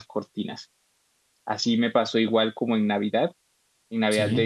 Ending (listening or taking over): listening